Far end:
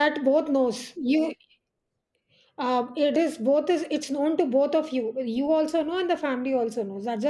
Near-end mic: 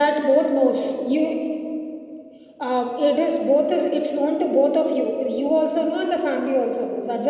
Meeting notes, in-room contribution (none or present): none